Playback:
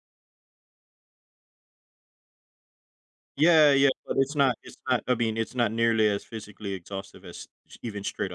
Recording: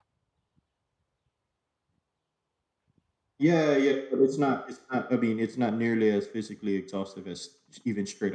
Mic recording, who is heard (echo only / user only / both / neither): echo only